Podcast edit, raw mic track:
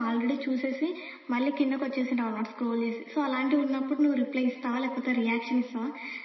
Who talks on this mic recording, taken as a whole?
echo only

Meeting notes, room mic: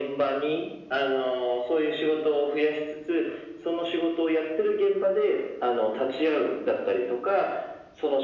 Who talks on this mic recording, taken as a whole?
echo only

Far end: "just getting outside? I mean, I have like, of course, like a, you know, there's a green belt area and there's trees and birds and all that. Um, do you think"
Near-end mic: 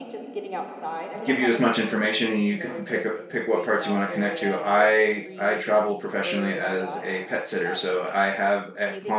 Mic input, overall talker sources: both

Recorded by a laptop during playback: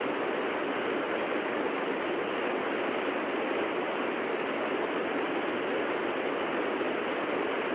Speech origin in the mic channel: neither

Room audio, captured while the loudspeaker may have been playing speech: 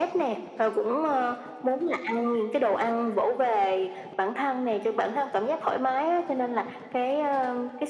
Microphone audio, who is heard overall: echo only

